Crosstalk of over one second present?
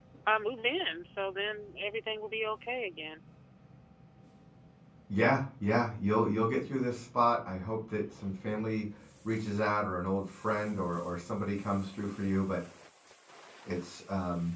No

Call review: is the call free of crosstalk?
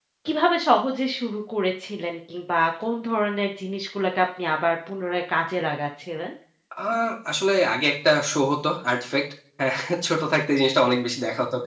Yes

